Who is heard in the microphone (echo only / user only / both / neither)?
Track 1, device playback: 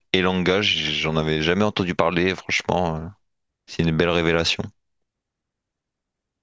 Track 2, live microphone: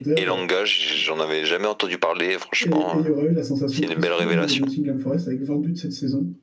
both